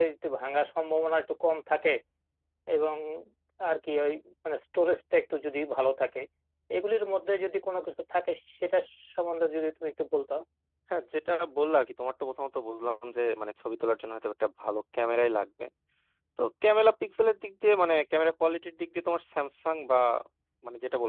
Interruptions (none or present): none